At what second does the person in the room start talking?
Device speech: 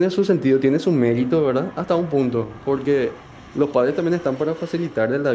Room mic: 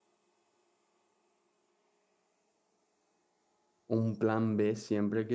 3.9 s

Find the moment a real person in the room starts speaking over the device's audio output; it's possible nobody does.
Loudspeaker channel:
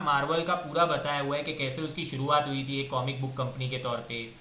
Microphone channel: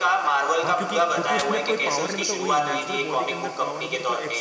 0.6 s

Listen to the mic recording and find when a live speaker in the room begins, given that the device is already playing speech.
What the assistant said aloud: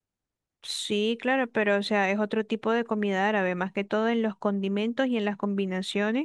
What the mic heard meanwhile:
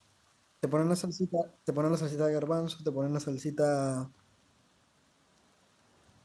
0.6 s

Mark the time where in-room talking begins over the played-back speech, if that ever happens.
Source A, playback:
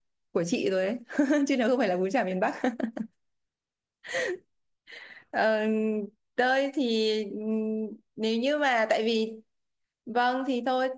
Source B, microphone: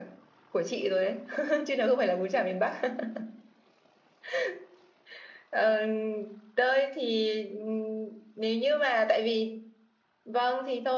none

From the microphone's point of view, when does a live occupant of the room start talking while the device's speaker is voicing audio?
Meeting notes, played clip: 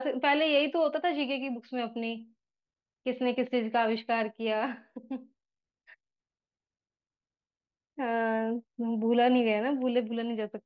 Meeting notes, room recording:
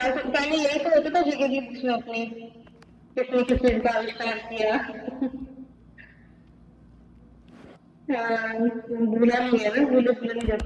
none

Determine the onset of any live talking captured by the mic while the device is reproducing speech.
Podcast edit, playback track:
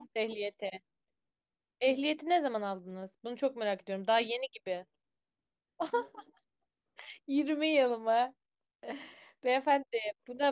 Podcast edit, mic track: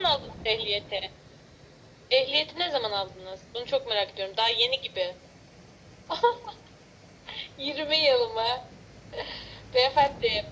none

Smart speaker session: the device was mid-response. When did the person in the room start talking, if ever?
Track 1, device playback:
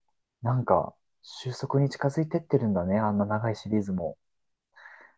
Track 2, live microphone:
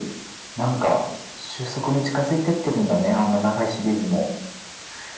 none

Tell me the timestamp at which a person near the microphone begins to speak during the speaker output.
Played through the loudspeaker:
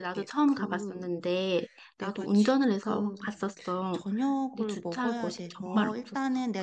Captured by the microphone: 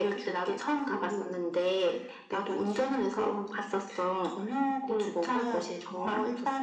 none

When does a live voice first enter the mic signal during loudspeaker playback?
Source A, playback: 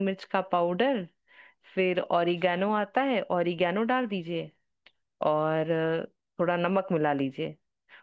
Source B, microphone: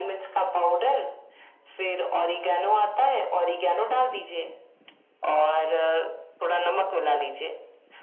none

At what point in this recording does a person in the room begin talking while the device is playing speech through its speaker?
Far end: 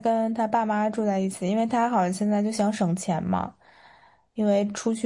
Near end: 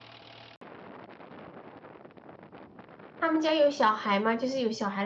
3.2 s

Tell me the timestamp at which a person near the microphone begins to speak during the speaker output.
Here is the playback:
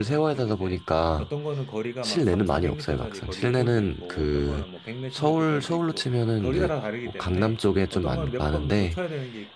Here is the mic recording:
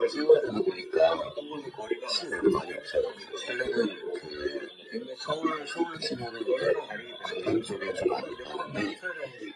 none

